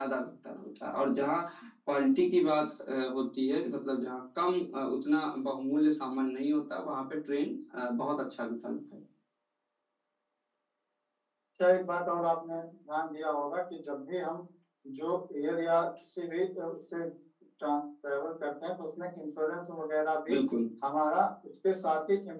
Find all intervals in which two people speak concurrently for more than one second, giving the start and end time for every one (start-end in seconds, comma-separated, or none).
none